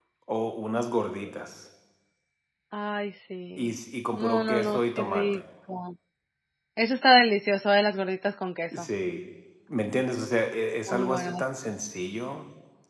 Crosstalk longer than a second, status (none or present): present